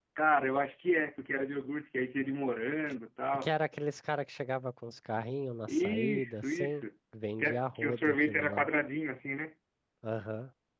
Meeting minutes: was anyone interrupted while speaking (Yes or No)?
Yes